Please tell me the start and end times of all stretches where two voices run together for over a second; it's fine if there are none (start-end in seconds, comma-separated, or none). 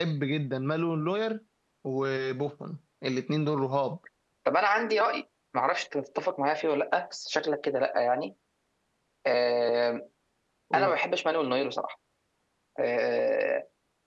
none